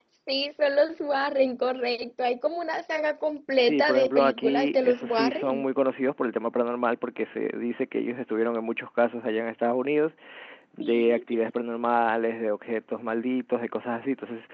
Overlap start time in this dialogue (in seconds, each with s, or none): 3.6 s